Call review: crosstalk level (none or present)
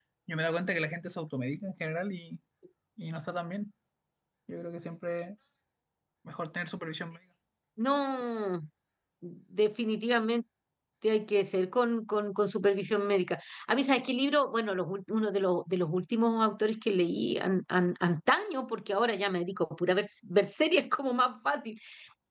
none